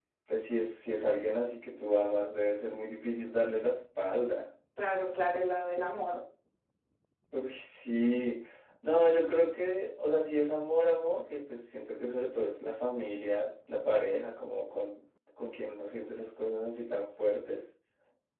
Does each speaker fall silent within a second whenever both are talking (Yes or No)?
Yes